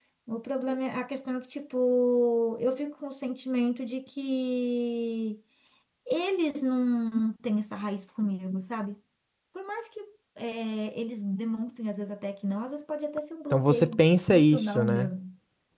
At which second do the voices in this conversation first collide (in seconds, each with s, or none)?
13.5 s